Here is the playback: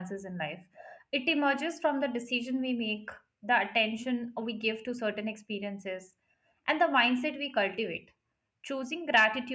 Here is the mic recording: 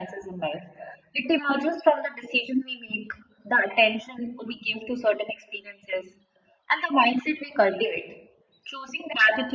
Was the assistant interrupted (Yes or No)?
No